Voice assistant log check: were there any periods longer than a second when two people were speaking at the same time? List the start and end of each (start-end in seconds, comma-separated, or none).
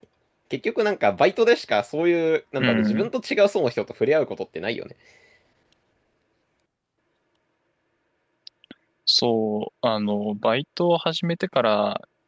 none